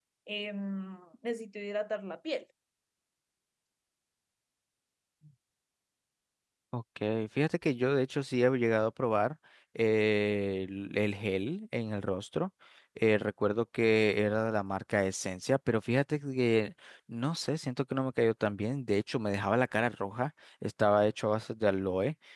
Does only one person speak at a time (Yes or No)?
Yes